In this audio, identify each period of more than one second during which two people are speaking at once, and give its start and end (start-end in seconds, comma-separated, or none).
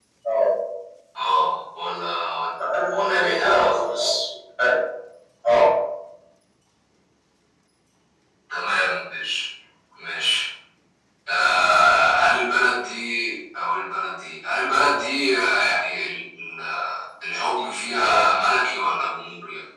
3.0-4.2